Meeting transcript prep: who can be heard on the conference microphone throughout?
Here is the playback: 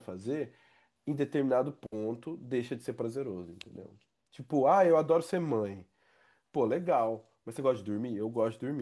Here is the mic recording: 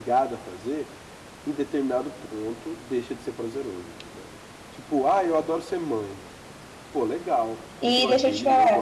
both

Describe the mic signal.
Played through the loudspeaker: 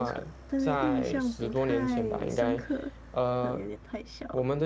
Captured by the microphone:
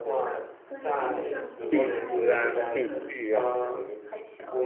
both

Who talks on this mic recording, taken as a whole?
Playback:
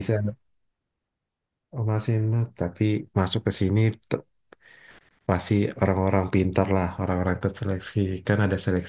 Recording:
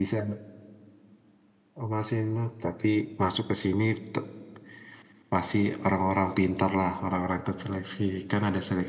echo only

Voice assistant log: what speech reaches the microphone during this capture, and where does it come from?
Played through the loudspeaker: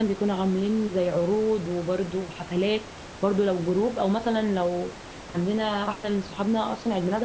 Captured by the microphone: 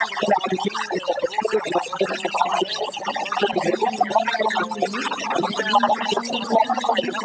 both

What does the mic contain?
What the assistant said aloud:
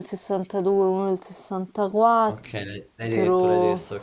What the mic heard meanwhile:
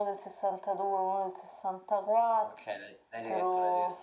echo only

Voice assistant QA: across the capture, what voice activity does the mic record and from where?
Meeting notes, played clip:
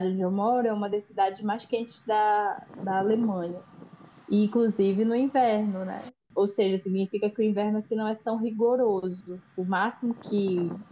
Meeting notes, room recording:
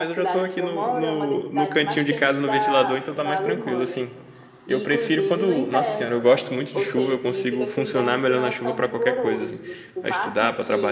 both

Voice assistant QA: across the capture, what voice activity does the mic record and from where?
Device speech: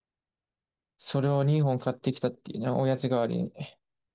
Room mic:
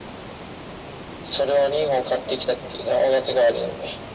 echo only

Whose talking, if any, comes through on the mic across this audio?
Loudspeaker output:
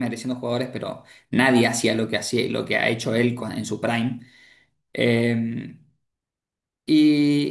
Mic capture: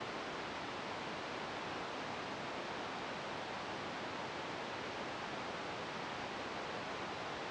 neither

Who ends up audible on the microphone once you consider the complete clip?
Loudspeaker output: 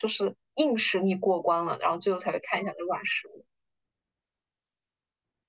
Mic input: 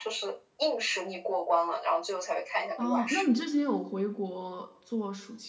both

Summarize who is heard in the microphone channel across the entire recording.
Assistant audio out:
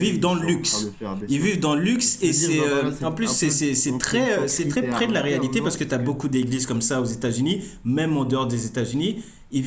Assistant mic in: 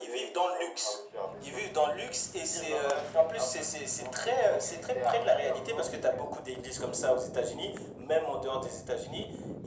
echo only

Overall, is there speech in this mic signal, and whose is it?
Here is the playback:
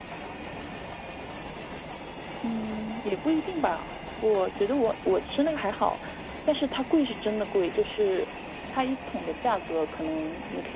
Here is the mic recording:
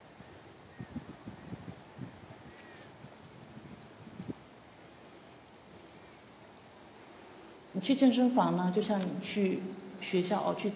user only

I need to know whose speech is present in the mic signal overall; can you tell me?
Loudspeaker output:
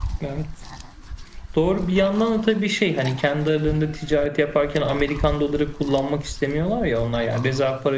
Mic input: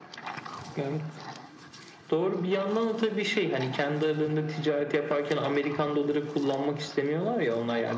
echo only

